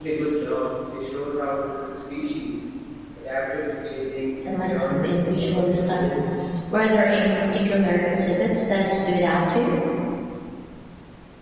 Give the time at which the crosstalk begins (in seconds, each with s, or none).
4.5 s